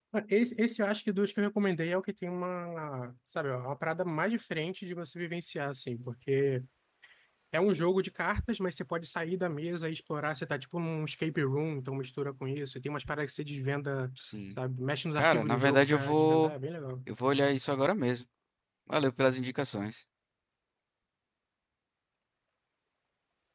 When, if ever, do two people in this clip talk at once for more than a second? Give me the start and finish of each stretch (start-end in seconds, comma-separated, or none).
15.2-16.5